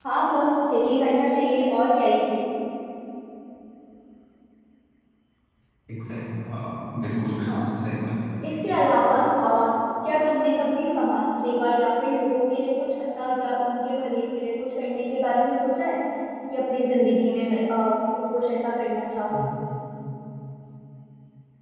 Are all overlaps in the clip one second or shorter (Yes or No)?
Yes